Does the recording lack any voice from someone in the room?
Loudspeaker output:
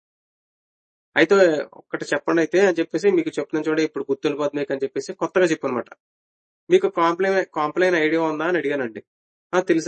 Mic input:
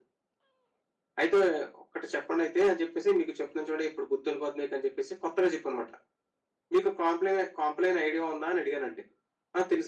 Yes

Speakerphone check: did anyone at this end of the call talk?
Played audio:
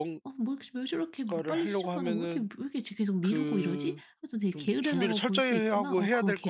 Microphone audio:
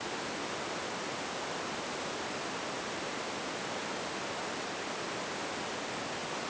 No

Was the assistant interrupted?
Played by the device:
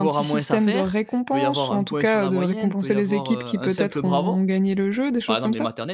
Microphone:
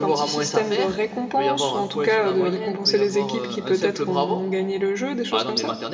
No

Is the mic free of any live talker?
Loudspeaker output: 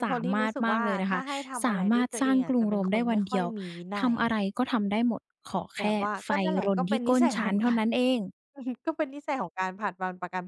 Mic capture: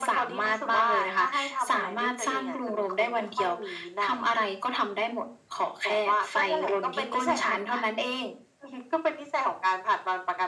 Yes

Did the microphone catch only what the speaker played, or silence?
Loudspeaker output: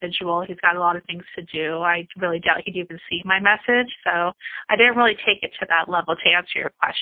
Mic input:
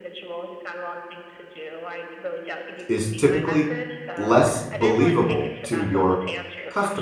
No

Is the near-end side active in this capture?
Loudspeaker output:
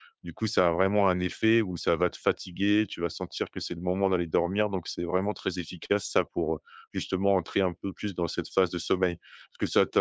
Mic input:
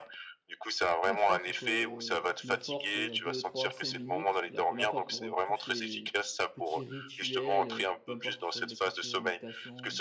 Yes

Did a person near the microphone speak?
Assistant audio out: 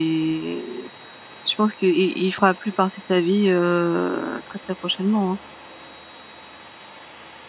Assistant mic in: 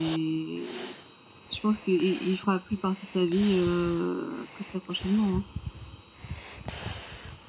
No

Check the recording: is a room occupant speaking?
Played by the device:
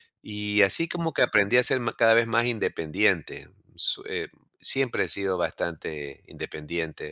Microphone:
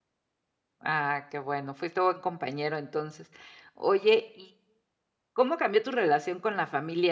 Yes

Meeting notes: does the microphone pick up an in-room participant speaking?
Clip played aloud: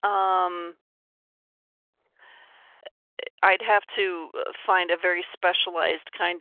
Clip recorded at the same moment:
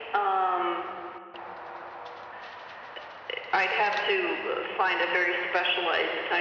No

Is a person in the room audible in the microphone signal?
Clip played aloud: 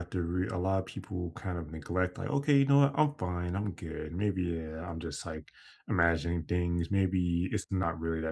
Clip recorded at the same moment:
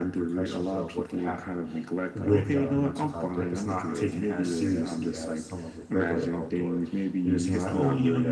Yes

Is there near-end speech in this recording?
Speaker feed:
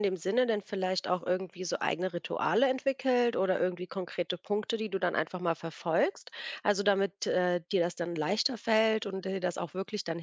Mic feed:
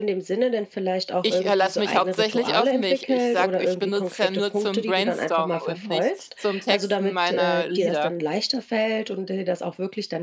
Yes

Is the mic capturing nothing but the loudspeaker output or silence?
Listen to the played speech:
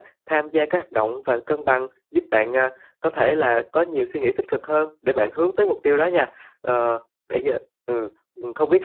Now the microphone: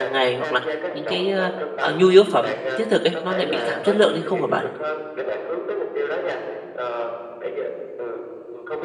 No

